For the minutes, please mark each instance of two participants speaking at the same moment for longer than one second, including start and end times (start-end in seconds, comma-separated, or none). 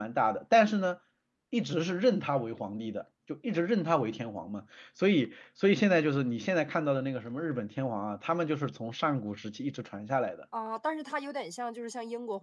none